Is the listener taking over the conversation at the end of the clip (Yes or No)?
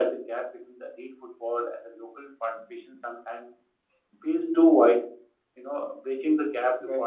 No